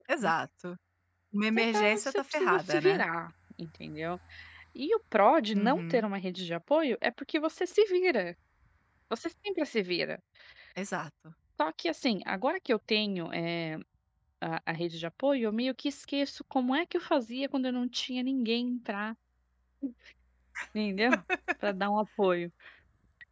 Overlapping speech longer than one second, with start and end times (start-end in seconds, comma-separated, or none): 1.7-3.0